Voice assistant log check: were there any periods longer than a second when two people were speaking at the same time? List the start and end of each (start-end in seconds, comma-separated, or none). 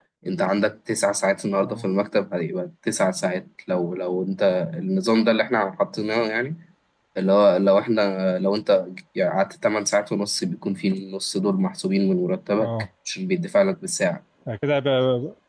none